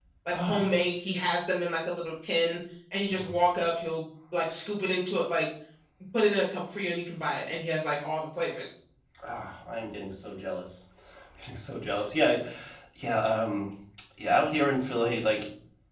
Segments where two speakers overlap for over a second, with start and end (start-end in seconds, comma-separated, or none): none